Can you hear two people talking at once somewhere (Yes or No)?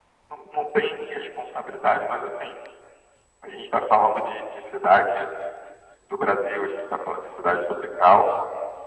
No